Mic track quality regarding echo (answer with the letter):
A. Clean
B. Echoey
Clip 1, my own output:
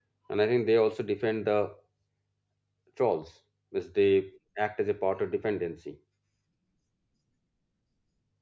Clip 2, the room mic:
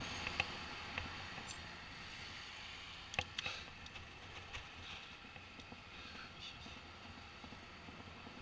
A